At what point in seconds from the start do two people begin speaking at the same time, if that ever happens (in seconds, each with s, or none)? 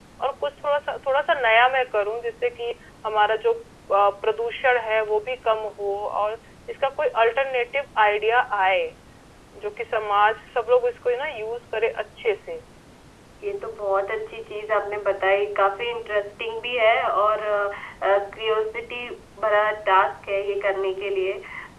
none